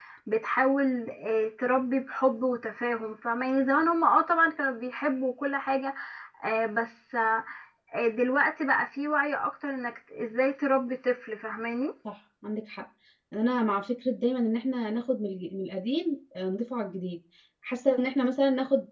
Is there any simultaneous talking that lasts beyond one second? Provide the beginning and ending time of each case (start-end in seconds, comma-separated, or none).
none